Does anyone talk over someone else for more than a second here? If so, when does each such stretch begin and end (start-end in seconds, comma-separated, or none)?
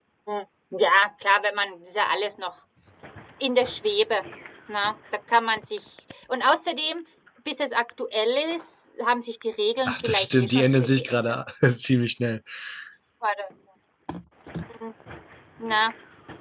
9.8-11.4